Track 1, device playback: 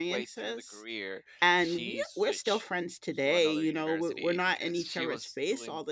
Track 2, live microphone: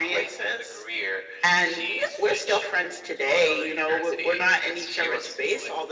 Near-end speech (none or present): none